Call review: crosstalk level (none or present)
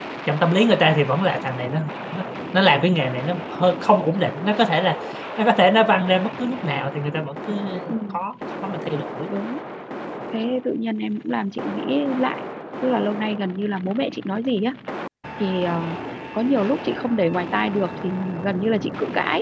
none